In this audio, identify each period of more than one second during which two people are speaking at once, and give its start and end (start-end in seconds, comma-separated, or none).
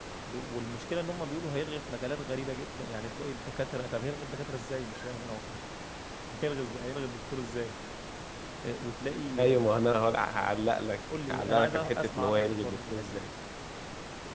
11.3-13.2